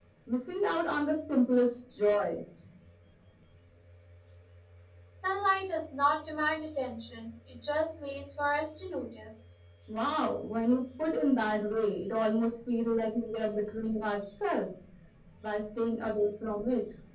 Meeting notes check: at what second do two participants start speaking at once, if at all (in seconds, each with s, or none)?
none